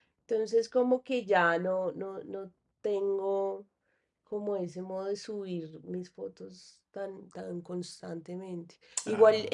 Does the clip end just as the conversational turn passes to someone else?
No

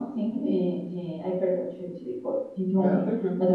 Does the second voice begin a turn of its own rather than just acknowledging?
No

